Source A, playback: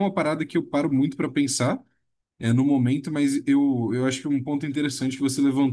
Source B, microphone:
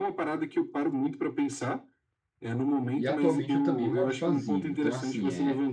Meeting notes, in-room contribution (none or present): present